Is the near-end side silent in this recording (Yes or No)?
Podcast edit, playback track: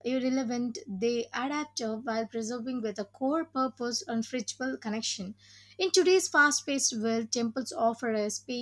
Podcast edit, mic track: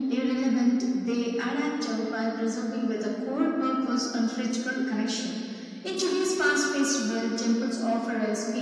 Yes